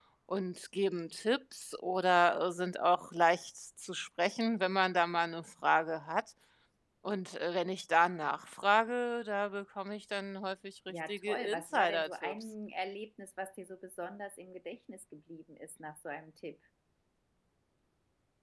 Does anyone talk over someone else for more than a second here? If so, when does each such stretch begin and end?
11.1-12.3

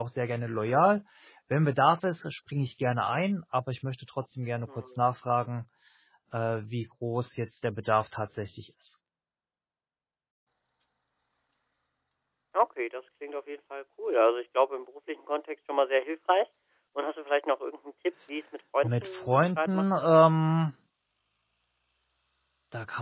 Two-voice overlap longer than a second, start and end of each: 18.8-20.2

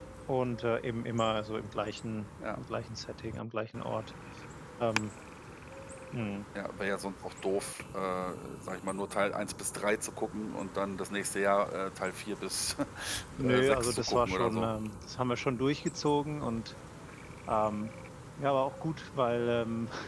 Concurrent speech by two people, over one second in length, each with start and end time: 13.4-14.7

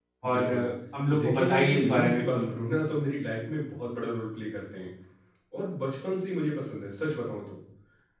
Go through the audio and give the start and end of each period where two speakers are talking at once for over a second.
1.2-2.5

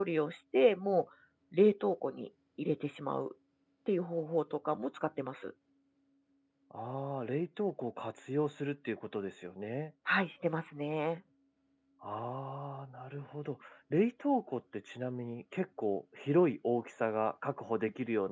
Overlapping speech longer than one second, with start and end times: none

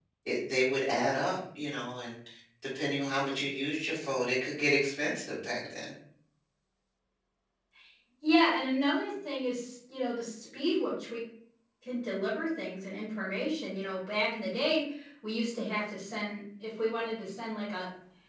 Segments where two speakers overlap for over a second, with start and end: none

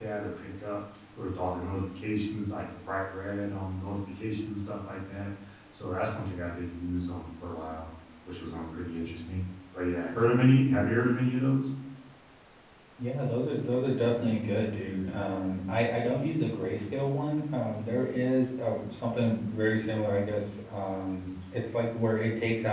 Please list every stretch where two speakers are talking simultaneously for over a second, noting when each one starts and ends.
none

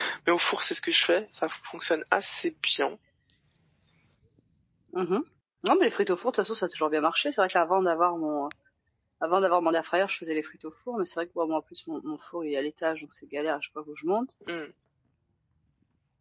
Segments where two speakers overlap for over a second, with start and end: none

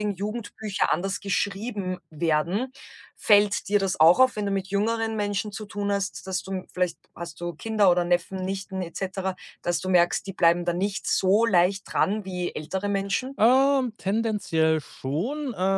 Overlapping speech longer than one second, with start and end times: none

